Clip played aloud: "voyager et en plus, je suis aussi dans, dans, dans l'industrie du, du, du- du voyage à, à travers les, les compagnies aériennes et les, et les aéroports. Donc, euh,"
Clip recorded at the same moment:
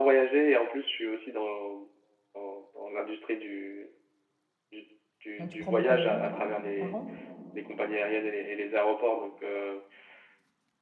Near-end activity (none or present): present